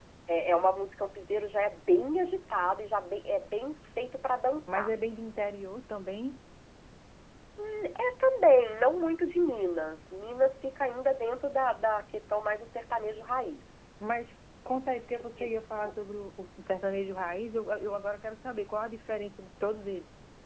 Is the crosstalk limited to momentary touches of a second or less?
Yes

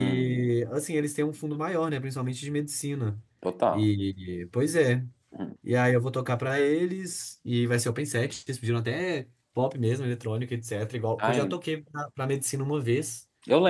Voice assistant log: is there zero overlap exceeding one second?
Yes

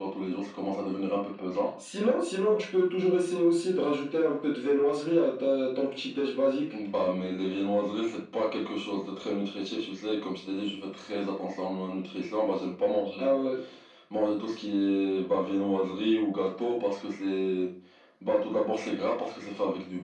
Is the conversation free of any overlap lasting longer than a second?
Yes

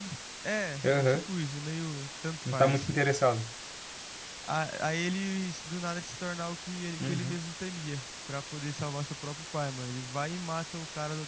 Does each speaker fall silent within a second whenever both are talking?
Yes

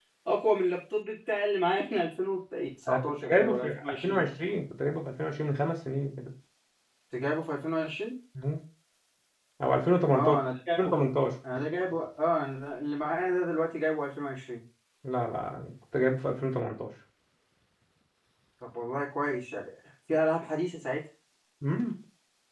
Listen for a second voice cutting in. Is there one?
Yes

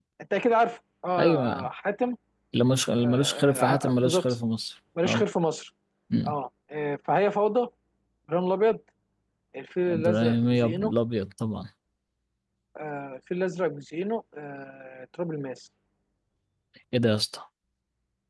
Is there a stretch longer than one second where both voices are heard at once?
Yes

